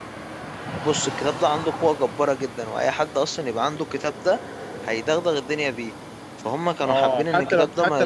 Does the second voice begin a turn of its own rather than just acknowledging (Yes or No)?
Yes